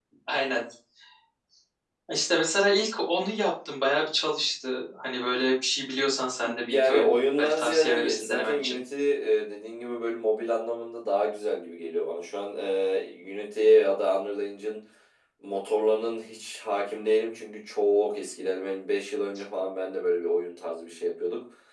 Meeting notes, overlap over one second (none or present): present